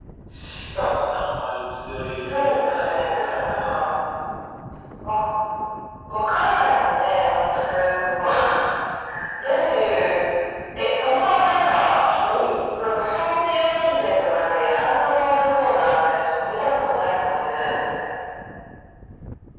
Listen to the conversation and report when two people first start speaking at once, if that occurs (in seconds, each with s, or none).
2.3 s